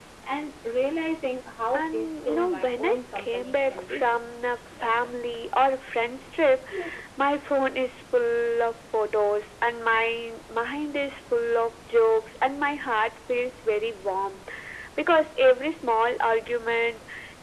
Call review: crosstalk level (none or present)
present